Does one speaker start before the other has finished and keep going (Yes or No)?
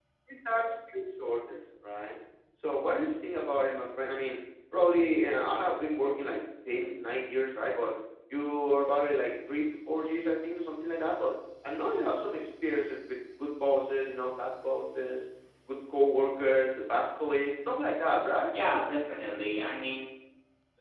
No